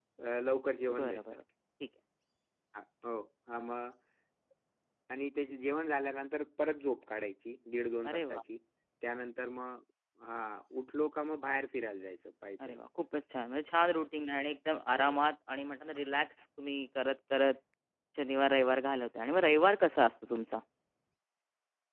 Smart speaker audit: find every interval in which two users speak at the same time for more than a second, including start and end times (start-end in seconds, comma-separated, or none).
none